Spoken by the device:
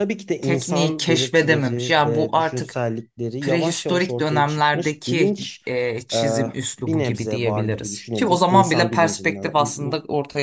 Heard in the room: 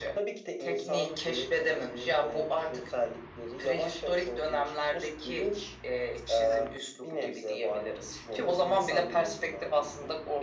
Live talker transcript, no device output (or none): none